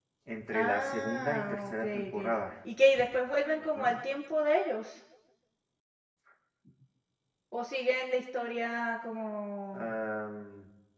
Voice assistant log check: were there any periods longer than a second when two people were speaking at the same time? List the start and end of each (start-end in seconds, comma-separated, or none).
0.5-2.3